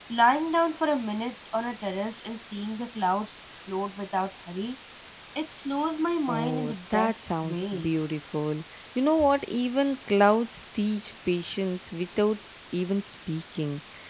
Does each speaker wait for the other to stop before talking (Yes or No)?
No